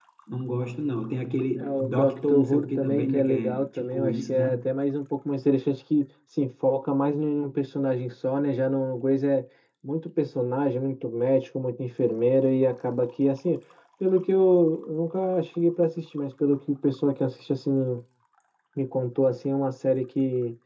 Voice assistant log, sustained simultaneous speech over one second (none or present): present